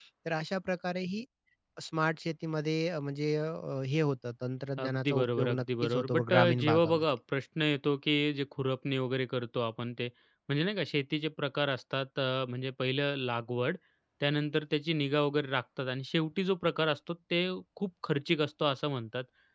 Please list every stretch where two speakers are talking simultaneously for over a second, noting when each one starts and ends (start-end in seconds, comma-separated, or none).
4.8-7.0